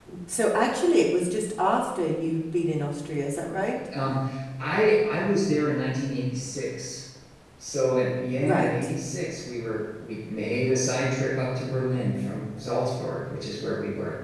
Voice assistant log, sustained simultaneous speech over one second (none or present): none